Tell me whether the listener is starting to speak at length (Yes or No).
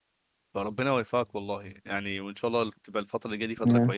No